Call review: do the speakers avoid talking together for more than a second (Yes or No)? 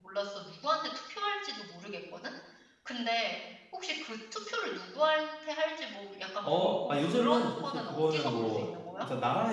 No